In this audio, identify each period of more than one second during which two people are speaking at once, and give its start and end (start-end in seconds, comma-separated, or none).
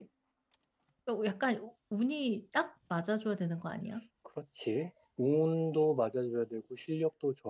none